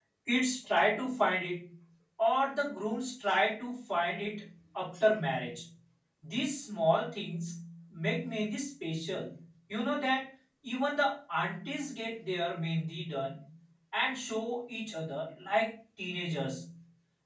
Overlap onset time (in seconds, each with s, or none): none